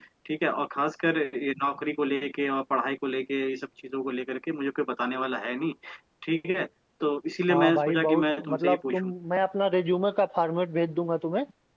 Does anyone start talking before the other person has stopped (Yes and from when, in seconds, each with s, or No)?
Yes, from 7.5 s